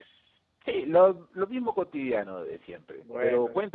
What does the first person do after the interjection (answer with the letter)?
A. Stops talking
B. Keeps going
B